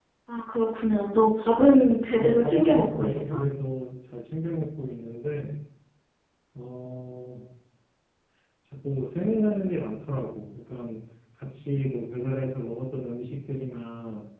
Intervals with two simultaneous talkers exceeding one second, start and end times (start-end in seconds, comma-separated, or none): 2.2-3.4